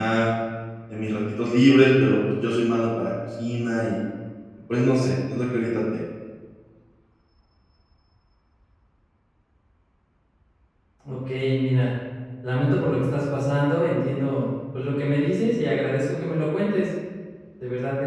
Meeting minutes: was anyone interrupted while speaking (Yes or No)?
No